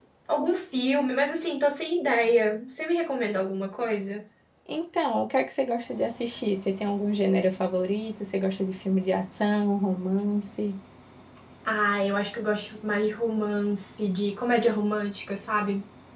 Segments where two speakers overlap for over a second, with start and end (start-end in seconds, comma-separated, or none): none